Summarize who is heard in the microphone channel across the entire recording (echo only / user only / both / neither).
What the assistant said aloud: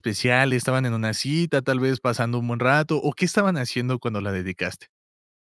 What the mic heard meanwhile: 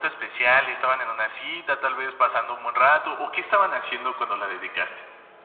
echo only